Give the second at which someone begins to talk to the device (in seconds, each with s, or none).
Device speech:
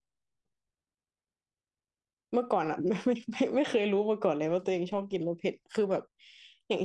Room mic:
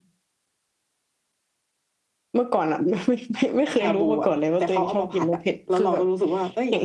3.8 s